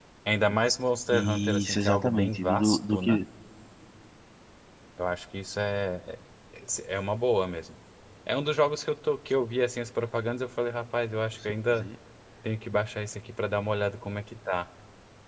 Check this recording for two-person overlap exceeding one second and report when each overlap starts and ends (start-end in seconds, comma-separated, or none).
1.1-3.2